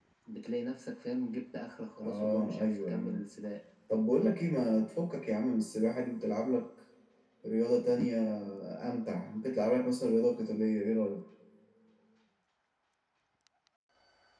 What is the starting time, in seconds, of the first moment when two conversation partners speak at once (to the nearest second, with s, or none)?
2 s